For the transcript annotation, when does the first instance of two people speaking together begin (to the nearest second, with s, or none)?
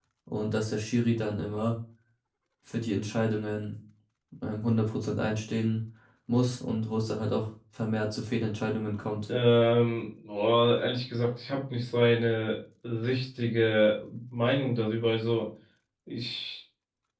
none